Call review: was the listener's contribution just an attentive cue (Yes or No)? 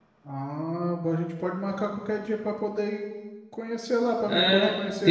No